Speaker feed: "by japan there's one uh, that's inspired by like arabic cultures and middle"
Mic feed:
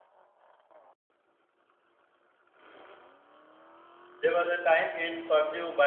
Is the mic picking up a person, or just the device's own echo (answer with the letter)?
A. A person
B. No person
A